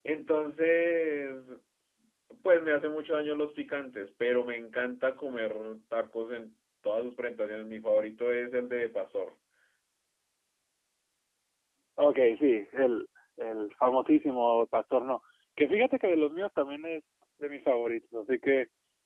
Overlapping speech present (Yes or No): No